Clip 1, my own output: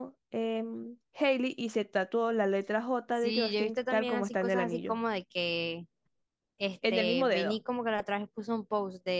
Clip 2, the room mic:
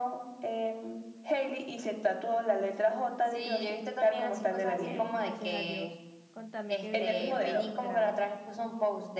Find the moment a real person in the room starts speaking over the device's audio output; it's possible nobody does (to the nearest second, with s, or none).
5 s